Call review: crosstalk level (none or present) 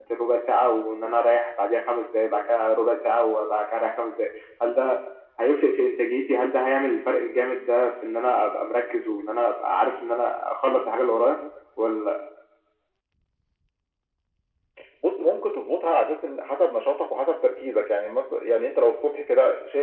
none